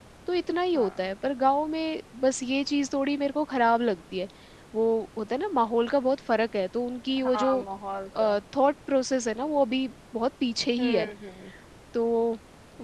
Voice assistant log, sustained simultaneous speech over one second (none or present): none